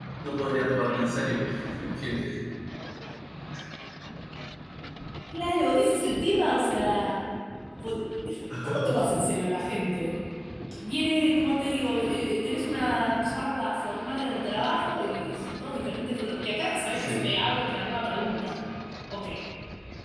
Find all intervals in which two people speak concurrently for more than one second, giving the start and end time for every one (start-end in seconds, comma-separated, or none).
none